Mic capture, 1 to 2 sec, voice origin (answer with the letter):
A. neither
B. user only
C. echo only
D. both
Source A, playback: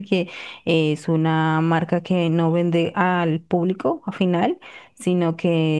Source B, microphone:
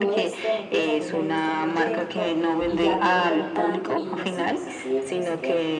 D